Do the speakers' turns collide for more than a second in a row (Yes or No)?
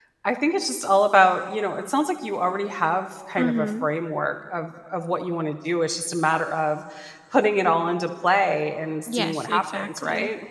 Yes